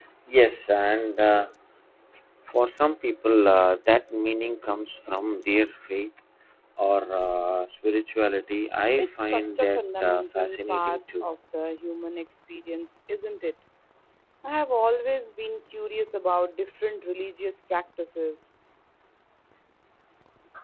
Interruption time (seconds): 9.0 s

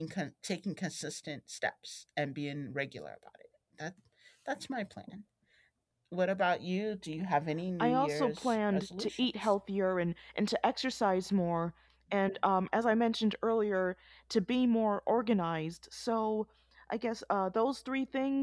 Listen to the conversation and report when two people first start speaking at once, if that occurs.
7.8 s

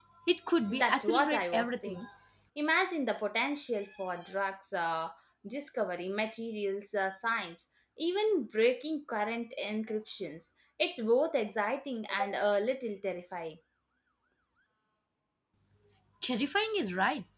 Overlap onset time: 0.7 s

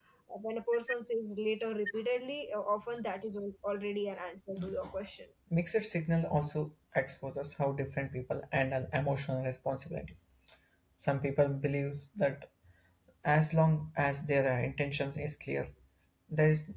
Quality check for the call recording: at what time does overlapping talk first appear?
none

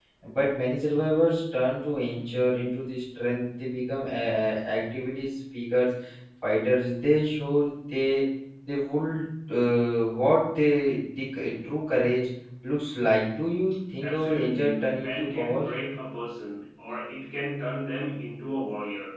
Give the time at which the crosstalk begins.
14.0 s

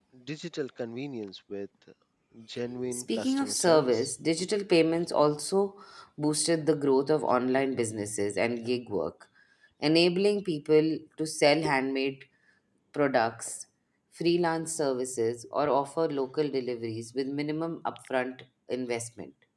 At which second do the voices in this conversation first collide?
2.9 s

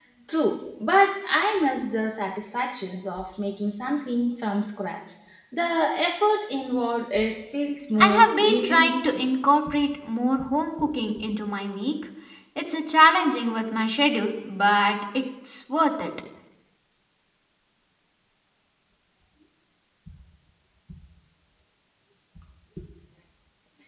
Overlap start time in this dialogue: 8.0 s

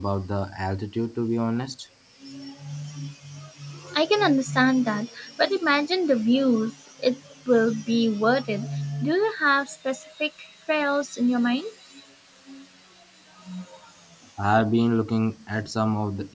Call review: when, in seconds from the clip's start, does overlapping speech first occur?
none

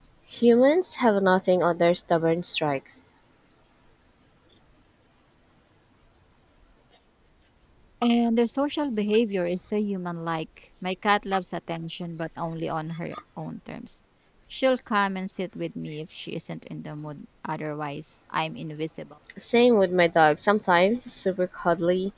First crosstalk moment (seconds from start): none

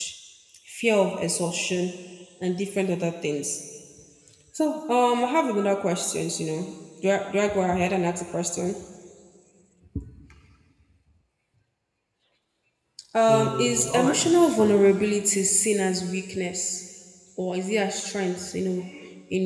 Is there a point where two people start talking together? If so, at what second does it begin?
13.3 s

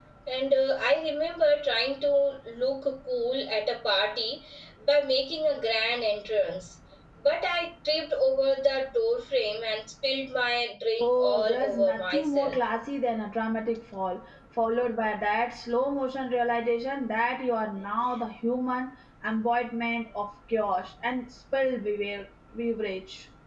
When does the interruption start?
11.0 s

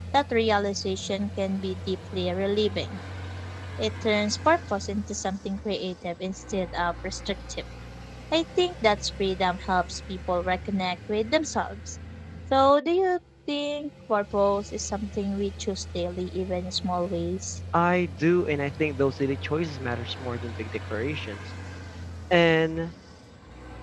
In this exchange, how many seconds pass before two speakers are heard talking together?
none

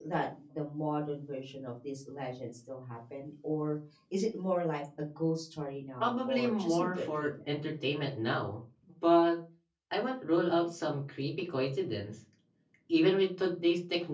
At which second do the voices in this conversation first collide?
6.0 s

